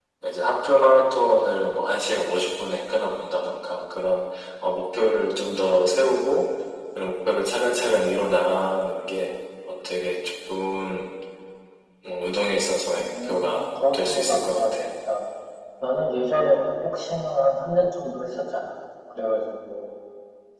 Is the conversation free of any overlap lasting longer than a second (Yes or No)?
No